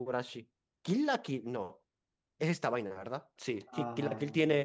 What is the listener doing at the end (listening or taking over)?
listening